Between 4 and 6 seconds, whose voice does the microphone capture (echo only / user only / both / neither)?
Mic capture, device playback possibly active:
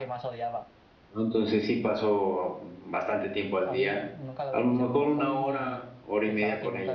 both